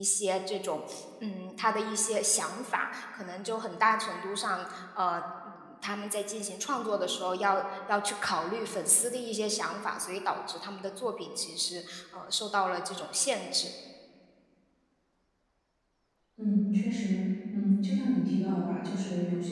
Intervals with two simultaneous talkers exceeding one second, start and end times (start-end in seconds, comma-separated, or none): none